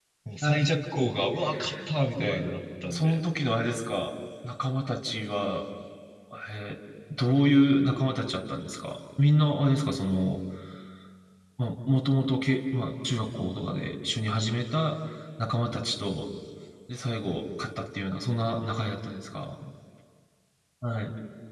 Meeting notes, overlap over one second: none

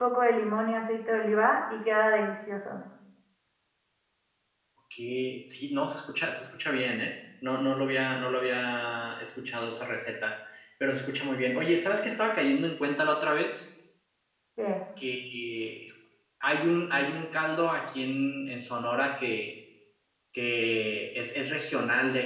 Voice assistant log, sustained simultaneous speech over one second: none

